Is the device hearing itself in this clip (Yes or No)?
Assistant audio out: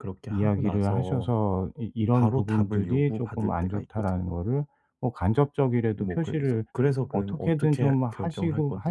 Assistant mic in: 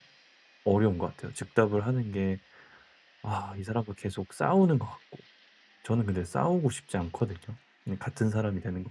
No